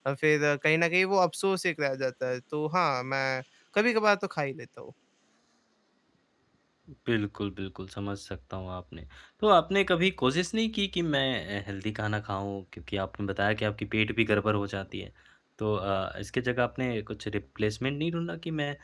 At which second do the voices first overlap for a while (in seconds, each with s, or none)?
none